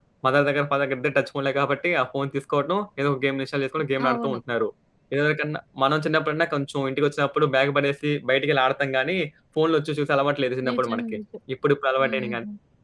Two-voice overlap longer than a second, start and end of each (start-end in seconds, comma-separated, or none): none